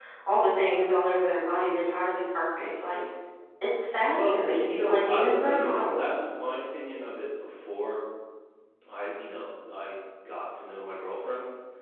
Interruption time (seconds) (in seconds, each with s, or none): 4.1 s